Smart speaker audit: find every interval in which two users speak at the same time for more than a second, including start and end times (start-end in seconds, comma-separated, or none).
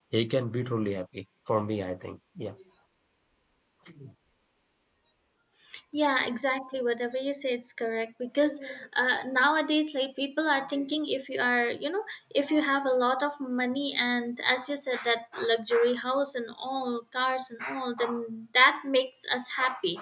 none